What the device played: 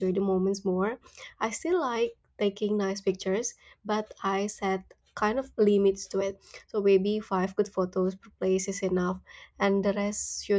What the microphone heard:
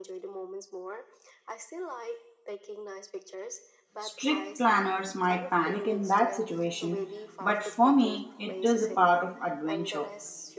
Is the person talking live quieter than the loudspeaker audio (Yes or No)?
No